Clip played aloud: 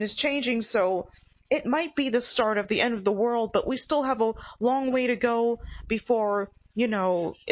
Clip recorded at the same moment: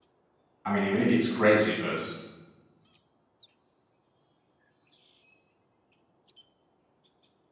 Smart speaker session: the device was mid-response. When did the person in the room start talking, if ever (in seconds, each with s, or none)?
0.6 s